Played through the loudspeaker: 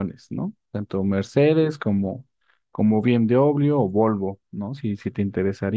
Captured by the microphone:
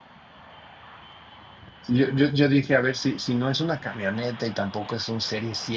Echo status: none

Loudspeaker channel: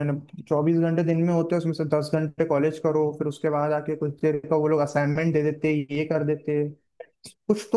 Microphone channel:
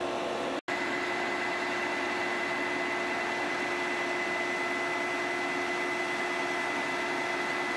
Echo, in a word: none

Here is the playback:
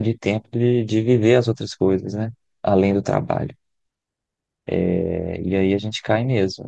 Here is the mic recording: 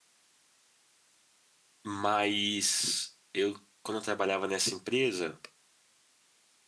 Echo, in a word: none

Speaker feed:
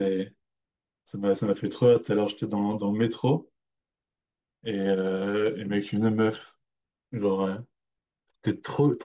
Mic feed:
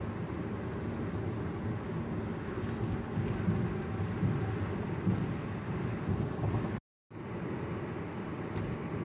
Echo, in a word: none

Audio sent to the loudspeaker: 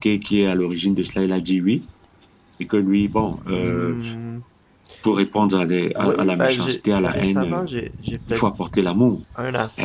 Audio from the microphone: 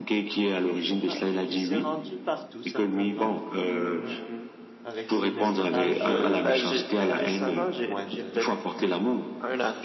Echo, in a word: present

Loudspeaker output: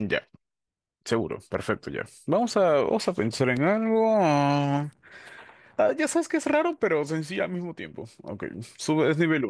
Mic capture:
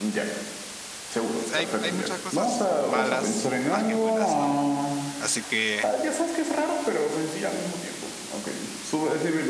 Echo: present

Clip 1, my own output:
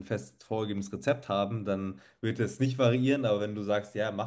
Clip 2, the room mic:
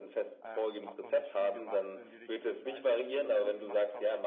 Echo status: present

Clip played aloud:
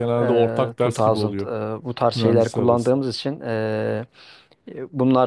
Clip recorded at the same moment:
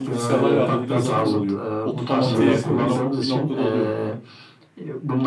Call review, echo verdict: present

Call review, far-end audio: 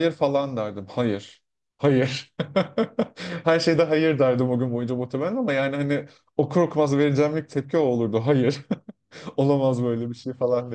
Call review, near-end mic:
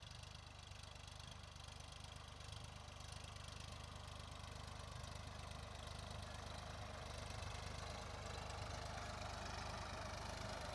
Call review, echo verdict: none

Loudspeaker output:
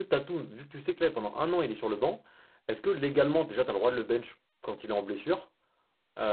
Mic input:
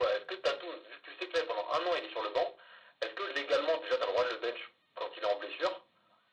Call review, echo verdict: present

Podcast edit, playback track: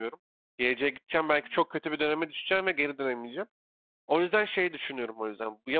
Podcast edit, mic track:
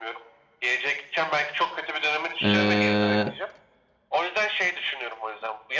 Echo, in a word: present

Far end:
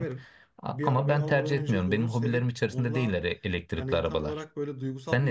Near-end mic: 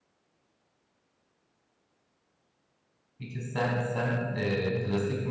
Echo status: none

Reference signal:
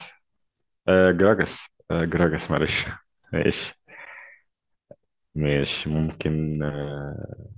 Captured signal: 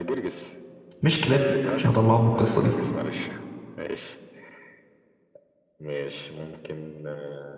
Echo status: present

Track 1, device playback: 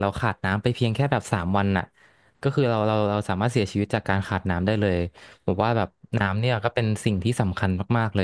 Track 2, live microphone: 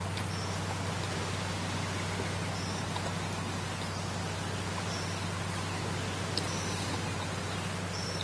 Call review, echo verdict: none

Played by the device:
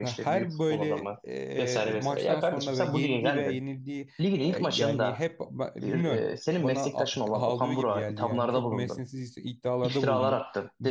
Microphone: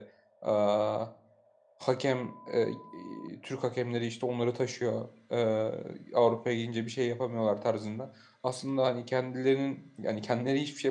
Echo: none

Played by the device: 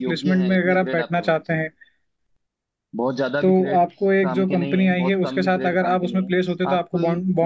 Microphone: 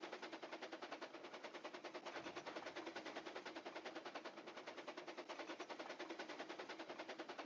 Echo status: none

